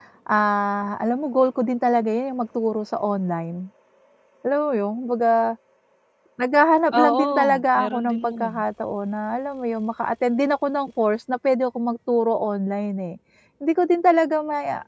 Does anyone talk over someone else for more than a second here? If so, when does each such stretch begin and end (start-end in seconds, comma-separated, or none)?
6.9-8.5